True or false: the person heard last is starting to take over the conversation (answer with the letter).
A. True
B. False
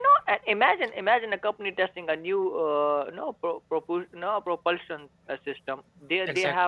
B